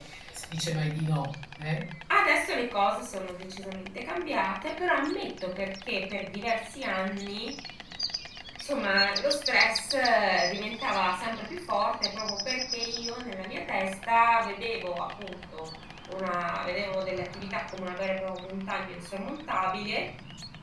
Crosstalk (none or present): none